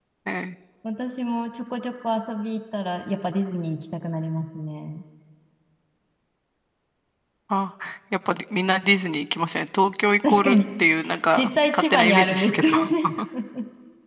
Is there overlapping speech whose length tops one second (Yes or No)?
Yes